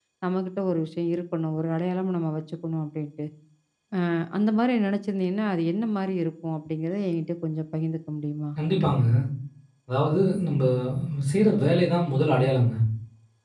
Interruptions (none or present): none